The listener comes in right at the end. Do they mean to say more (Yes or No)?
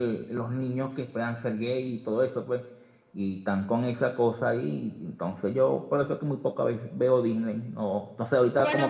Yes